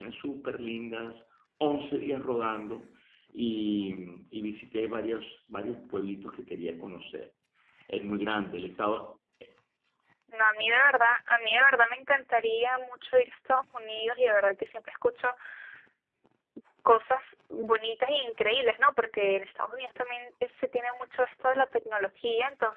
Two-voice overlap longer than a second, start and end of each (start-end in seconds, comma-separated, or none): none